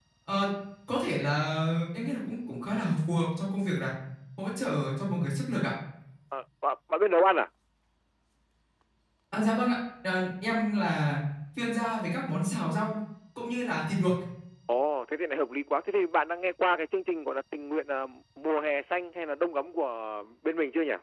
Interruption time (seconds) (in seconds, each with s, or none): none